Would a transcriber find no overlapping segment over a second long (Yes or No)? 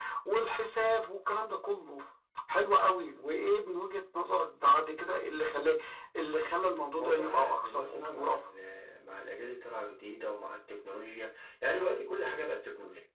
No